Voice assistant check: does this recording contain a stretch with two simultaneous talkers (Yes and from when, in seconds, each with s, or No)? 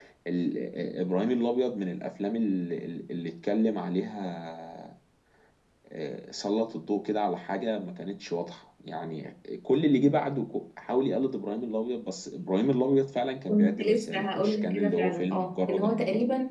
Yes, from 13.5 s